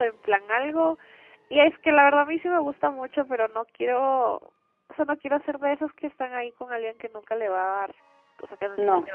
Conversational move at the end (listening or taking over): listening